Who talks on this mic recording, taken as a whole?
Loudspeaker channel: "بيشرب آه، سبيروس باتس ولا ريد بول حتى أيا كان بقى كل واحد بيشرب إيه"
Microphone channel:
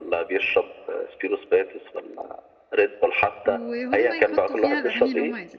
both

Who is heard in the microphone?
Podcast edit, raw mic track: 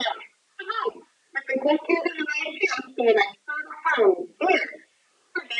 echo only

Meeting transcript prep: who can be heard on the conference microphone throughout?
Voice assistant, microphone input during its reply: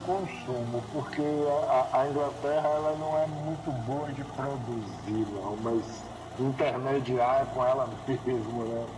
echo only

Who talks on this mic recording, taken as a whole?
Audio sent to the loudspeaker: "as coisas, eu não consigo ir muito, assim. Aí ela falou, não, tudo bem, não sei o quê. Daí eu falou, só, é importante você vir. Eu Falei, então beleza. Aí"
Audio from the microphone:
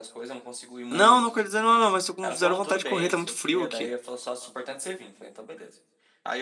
both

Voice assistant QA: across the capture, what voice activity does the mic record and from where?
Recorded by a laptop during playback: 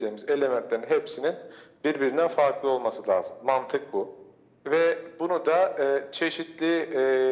echo only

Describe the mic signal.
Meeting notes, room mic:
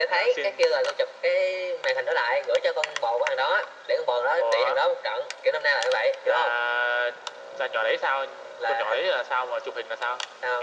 echo only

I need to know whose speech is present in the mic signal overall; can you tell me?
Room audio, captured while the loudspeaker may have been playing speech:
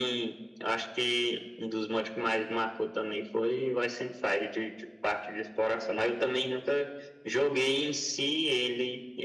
echo only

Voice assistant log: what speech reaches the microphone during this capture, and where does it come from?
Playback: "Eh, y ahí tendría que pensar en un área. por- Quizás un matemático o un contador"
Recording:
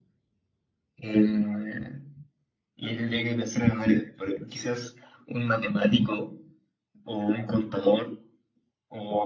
echo only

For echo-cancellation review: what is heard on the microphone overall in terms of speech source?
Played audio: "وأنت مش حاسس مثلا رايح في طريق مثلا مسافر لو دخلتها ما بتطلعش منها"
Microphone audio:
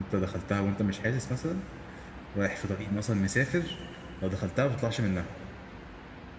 echo only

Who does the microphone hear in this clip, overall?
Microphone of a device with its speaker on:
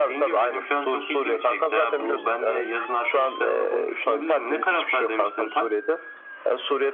echo only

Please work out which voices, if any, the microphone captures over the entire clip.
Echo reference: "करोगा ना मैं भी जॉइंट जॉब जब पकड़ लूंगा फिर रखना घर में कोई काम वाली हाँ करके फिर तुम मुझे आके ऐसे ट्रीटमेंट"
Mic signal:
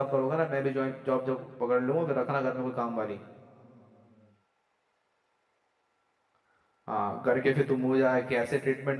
echo only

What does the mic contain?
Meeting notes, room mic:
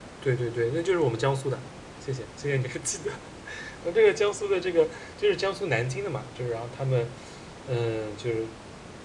echo only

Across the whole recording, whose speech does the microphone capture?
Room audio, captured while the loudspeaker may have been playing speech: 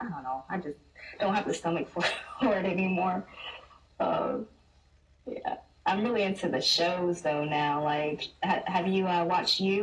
echo only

